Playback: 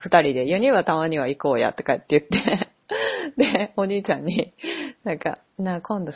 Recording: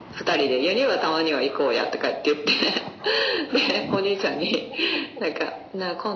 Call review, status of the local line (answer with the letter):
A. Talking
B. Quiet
B